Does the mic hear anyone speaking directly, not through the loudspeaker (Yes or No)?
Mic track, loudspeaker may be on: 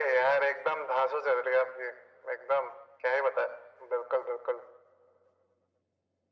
No